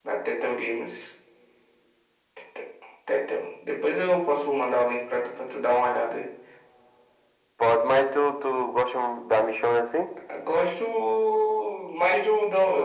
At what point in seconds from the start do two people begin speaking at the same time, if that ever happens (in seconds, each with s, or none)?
none